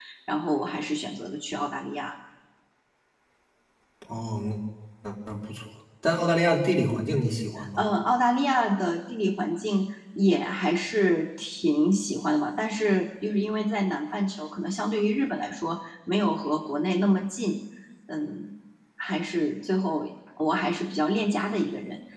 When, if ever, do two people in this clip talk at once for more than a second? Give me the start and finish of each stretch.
none

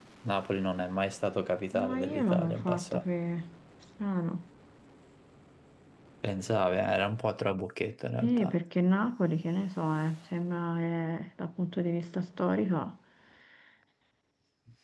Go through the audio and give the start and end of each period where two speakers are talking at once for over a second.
1.7-3.0

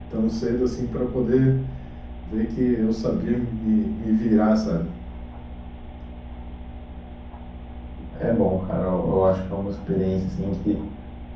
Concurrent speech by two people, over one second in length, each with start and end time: none

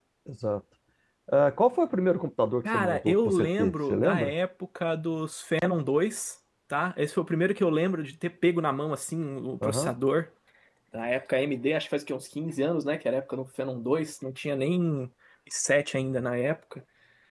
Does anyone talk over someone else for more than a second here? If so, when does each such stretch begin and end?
2.6-4.3

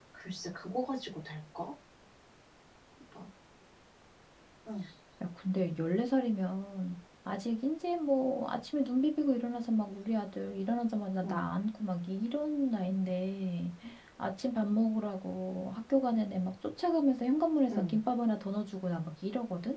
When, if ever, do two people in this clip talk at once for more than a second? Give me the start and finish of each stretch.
none

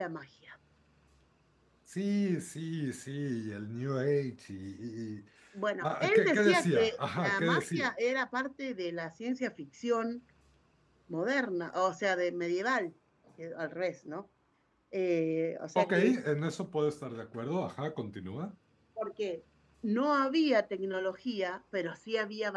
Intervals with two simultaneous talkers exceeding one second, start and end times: 5.8-7.9

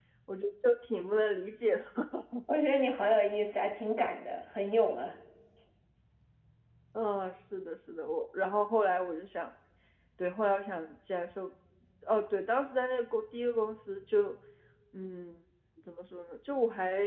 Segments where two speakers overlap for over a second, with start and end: none

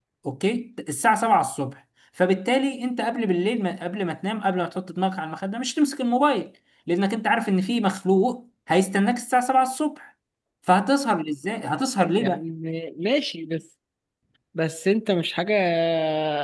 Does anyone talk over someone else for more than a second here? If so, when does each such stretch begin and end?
none

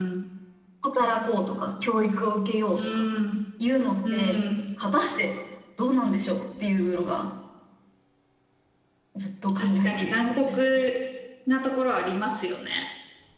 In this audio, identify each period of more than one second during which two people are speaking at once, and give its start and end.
9.6-10.8

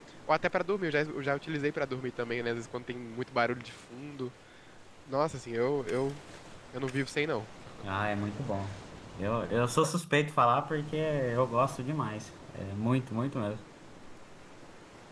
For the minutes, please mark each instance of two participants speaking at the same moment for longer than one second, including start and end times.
none

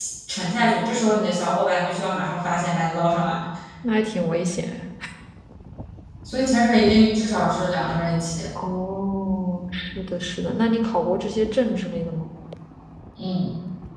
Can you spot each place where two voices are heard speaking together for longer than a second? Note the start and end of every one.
none

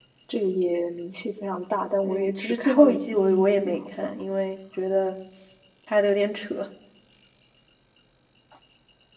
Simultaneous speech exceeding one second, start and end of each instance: 2.0-4.1

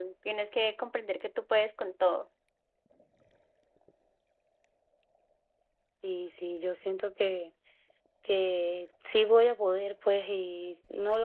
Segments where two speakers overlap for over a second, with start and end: none

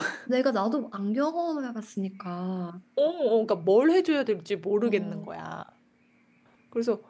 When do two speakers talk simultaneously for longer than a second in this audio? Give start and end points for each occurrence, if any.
none

